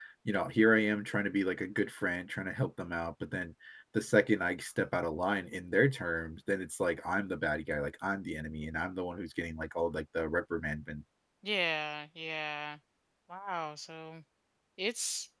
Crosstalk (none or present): none